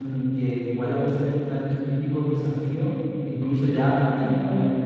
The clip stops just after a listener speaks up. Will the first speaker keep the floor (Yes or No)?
Yes